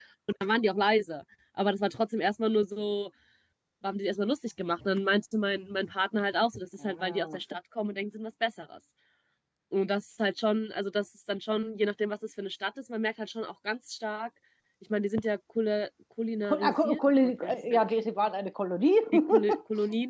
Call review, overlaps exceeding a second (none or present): present